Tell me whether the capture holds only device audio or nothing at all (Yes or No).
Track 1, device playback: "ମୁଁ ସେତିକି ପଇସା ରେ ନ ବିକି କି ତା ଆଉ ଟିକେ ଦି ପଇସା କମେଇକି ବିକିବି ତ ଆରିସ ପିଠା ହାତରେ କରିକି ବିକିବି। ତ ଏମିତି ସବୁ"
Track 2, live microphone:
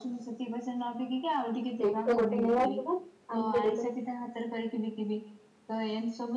No